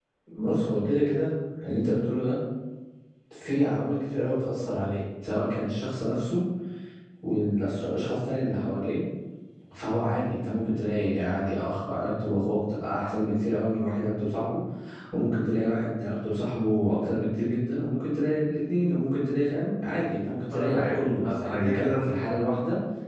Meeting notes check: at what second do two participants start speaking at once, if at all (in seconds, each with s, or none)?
20.5 s